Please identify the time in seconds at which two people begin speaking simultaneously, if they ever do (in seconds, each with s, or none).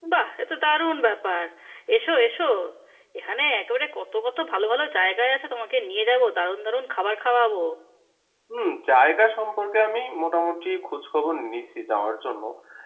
none